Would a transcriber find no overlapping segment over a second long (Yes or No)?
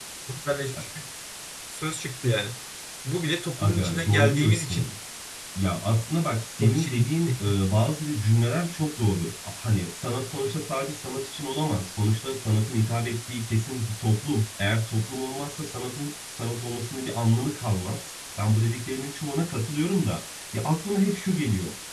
No